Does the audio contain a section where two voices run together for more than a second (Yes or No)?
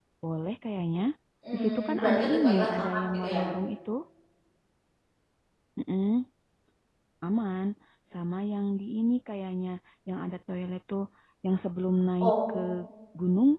Yes